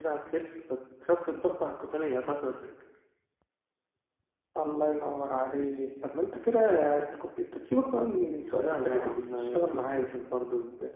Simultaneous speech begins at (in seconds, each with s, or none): 8.6 s